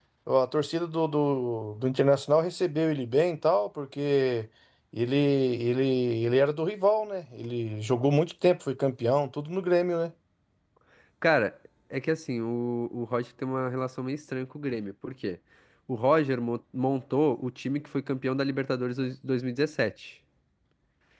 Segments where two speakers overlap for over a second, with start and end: none

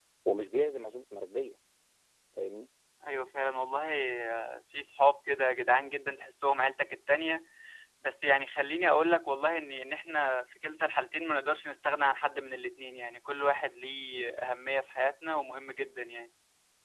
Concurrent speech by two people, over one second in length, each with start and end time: none

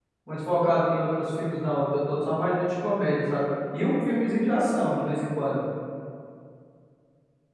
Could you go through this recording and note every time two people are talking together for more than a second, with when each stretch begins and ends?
none

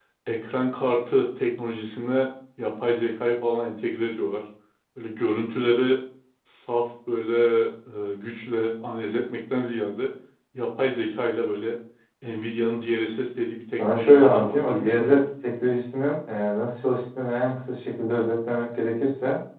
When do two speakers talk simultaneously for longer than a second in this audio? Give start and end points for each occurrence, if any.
13.8-15.2

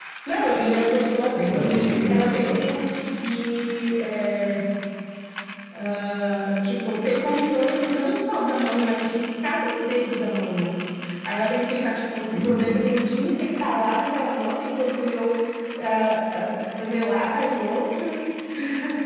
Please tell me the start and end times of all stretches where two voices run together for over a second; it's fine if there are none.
1.4-2.6

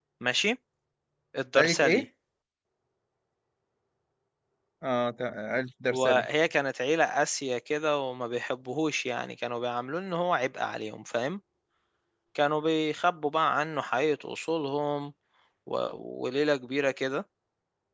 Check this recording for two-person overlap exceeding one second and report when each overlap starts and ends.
none

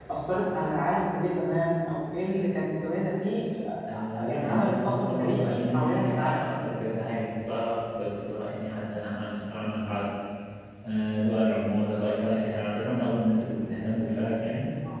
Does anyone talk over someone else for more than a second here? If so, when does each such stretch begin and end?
3.9-6.4

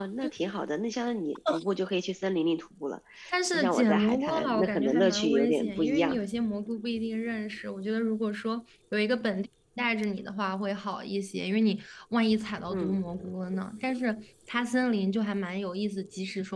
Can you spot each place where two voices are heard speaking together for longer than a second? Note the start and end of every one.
3.5-6.2

